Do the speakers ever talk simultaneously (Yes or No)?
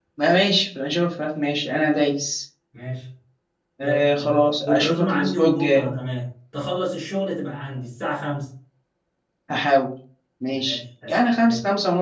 Yes